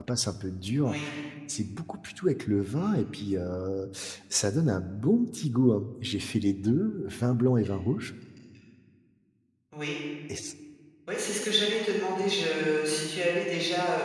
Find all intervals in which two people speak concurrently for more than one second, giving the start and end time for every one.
none

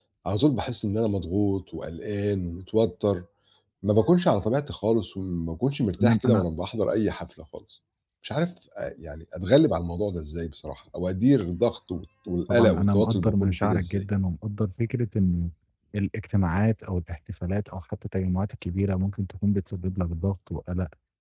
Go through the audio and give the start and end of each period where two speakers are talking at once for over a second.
12.5-14.0

